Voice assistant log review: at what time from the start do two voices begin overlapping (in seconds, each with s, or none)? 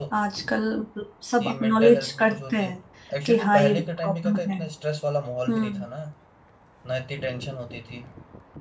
1.4 s